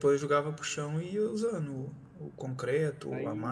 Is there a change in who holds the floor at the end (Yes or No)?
Yes